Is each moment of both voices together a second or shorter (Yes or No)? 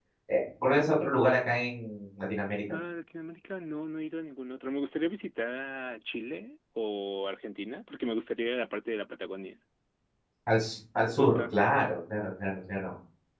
Yes